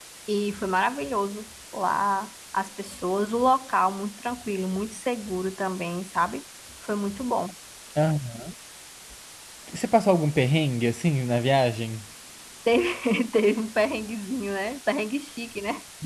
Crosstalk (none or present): none